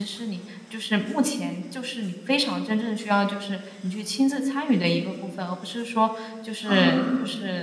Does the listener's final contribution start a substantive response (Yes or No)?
No